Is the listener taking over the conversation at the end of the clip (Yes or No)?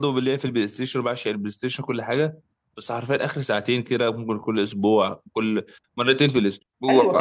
Yes